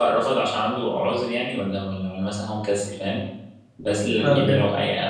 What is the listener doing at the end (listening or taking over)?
listening